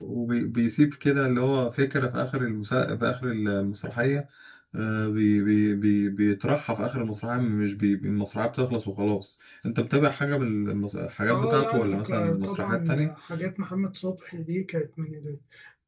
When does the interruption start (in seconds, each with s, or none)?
11.3 s